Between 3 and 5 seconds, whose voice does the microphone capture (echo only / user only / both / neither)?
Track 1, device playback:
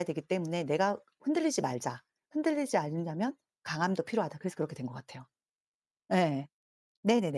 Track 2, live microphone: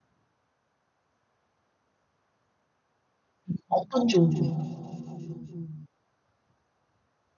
user only